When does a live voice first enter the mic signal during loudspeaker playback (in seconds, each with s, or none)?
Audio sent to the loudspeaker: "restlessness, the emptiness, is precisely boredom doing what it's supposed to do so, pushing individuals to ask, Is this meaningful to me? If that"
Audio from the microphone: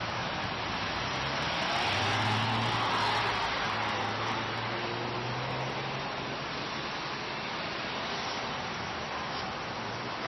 none